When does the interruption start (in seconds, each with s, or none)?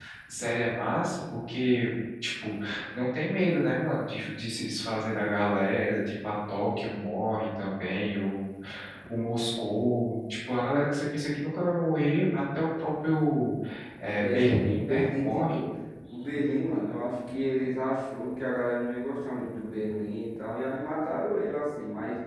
14.1 s